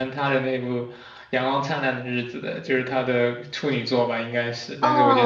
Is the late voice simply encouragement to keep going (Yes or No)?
No